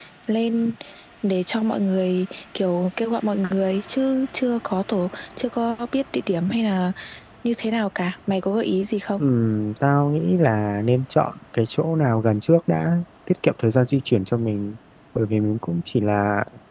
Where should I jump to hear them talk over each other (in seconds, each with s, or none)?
none